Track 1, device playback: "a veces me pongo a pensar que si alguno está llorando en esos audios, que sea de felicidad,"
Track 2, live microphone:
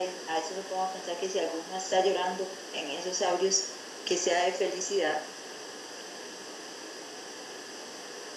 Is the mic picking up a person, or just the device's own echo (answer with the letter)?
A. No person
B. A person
A